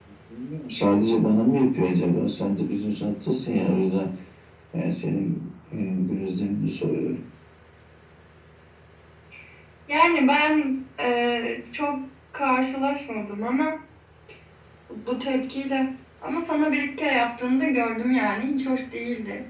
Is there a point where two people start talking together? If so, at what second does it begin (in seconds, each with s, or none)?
none